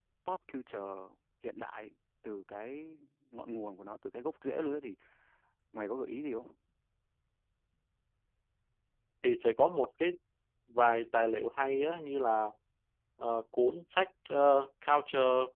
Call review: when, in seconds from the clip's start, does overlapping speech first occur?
none

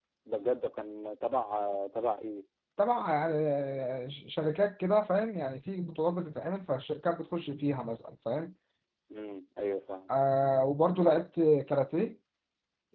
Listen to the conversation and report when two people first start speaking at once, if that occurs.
none

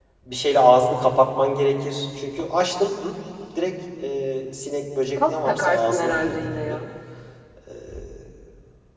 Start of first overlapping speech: 5 s

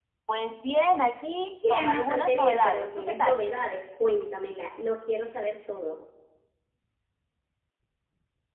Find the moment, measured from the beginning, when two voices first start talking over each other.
2 s

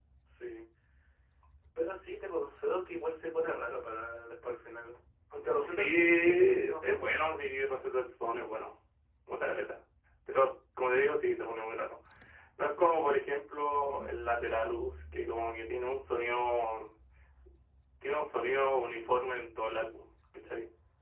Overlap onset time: 6 s

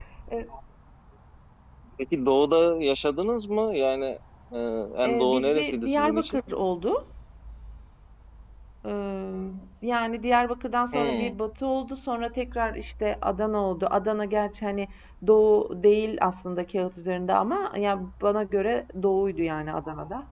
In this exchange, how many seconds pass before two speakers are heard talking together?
5 s

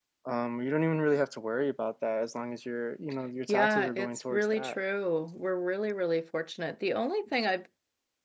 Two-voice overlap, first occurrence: 3 s

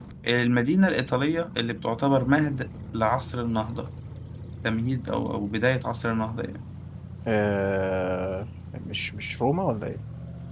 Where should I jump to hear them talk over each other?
none

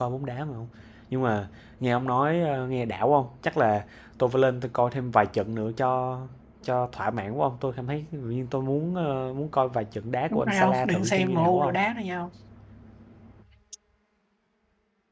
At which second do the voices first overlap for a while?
10 s

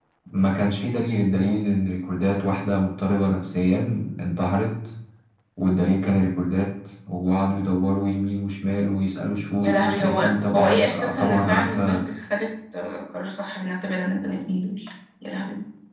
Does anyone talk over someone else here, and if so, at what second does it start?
10 s

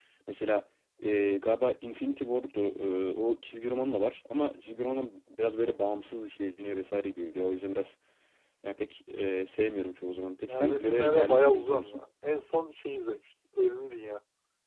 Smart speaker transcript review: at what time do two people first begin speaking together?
10 s

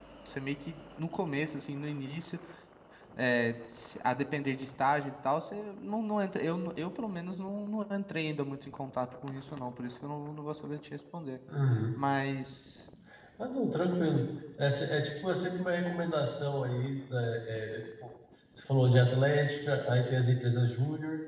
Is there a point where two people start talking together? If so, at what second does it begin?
none

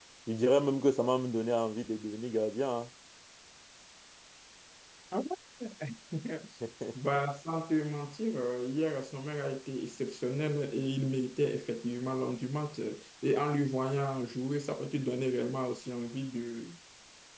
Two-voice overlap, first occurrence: none

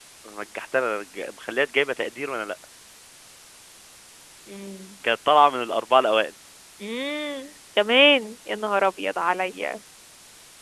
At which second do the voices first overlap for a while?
none

